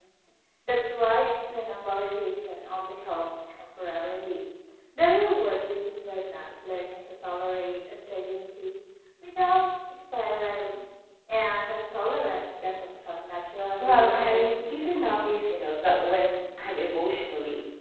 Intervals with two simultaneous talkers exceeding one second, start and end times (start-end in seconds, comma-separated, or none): 13.8-15.1